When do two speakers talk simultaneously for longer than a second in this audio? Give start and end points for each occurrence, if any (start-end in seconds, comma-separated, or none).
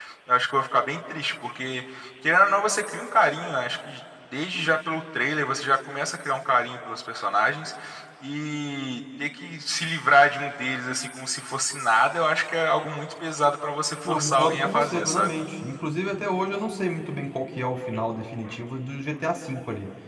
14.0-15.3